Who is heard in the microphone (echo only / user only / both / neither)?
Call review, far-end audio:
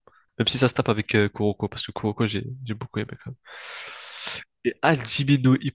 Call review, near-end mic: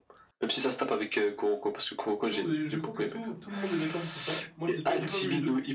both